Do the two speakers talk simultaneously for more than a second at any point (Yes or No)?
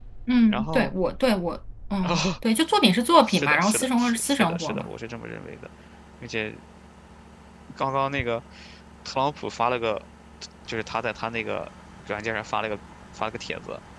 Yes